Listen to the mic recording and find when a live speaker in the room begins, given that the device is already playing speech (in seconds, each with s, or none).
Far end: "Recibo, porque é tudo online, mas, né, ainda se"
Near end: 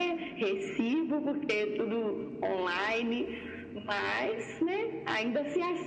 none